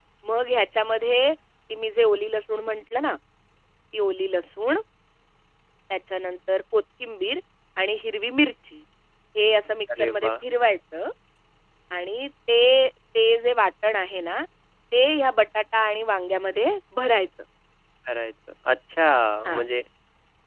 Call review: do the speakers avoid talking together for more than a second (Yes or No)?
Yes